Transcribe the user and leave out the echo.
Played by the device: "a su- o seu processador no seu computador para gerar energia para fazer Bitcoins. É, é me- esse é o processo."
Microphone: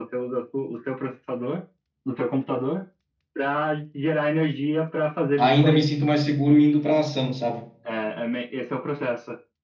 ainda me sinto mais seguro indo para ação, sabe?

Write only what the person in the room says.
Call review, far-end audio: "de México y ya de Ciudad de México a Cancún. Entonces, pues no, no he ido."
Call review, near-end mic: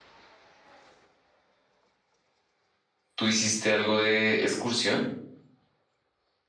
¿Tú hiciste algo de excursión?

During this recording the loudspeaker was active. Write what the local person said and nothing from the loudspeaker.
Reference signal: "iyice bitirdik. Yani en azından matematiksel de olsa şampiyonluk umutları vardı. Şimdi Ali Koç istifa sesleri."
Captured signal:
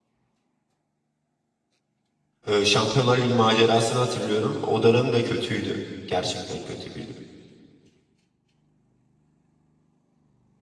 Ee, Şampiyonlar Ligi macerasını hatırlıyorum. O dönem de kötüydü. Gerçekten kötüydü.

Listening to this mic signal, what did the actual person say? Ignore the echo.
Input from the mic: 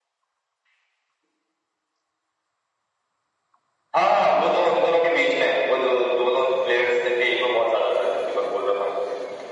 none

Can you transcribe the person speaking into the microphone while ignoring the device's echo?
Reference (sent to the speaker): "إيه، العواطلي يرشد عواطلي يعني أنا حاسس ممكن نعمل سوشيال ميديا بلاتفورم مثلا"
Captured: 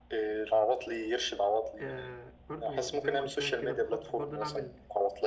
آه برضو زي ما قلت لك كده بخطط برضو نعمل

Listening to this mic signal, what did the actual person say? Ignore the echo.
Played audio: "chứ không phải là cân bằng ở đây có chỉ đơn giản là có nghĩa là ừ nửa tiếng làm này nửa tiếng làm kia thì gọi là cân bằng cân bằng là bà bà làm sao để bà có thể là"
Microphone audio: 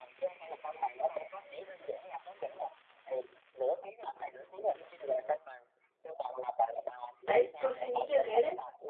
đấy tôi suy nghĩ như thế đấy

